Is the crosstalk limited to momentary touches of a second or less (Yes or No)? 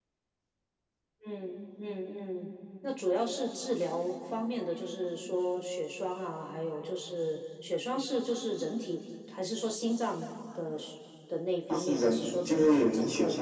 No